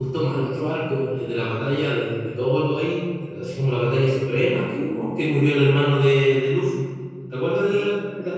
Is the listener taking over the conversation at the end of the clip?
Yes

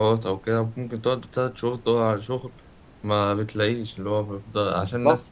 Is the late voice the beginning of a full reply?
No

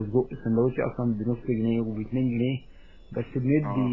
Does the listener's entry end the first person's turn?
No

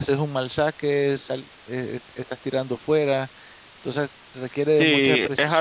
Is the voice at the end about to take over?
Yes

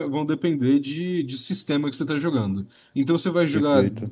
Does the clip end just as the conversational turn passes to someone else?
No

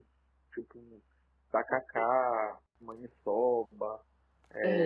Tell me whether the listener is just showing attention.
No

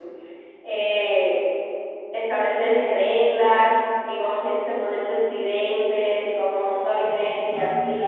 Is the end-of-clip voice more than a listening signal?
No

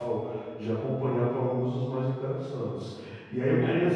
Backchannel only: Yes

